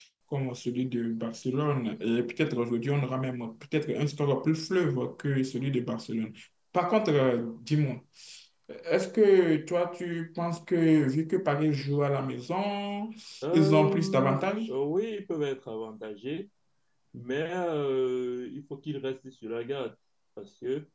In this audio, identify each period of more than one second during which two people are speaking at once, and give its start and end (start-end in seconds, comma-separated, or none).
13.5-14.7